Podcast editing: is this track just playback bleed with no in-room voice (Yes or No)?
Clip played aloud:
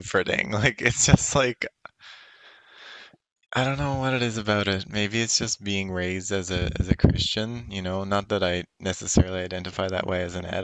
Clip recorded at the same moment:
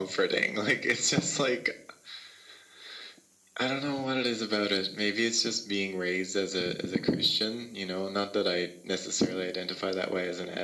Yes